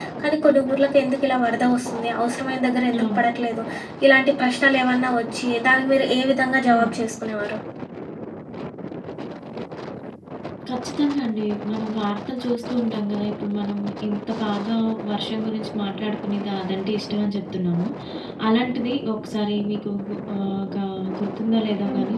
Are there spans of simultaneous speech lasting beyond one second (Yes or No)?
No